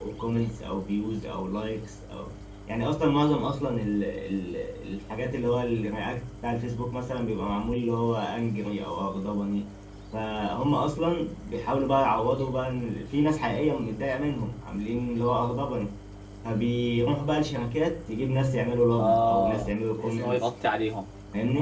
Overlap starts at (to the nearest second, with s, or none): 19 s